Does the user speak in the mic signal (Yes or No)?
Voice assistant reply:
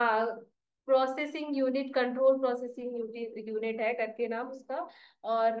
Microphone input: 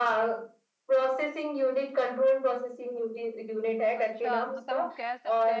Yes